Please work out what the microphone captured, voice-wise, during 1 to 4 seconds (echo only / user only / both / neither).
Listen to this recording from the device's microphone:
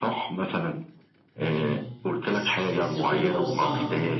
both